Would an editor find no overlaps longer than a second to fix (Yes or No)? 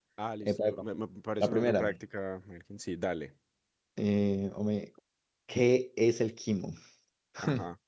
Yes